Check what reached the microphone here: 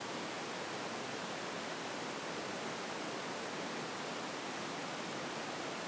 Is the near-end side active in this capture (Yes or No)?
No